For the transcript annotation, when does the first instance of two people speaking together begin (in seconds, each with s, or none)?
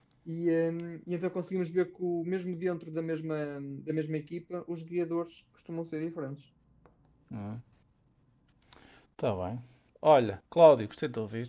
none